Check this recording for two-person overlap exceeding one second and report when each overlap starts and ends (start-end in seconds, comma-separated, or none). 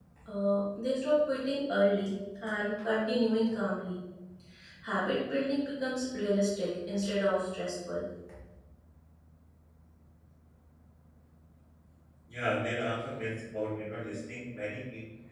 none